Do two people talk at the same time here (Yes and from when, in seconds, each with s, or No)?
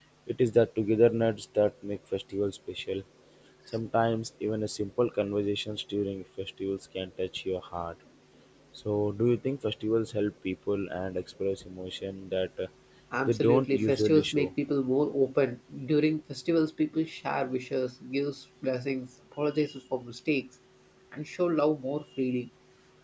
Yes, from 13.3 s